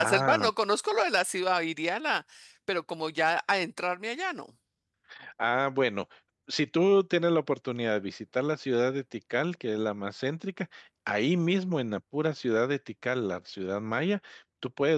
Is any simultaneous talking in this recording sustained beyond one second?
No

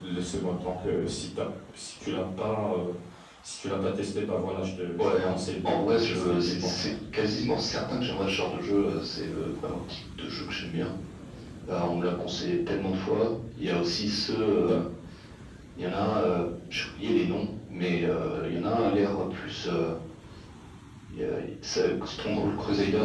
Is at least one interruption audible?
Yes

